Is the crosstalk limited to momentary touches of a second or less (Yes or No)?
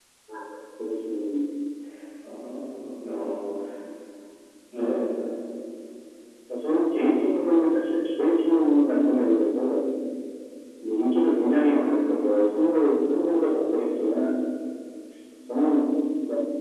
Yes